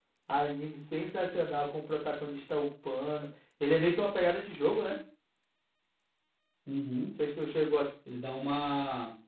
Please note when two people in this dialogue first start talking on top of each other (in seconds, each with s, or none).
none